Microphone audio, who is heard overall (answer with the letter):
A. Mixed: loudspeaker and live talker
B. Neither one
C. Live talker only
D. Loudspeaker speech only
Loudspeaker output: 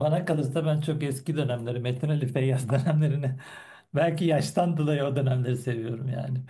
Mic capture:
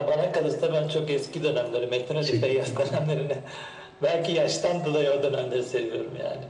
A